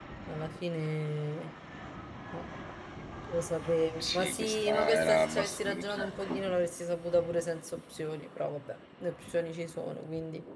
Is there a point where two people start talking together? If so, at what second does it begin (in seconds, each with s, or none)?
4.0 s